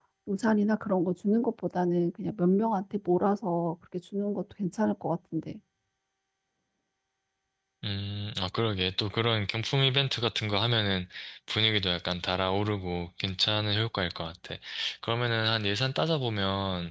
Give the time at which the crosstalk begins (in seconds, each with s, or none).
none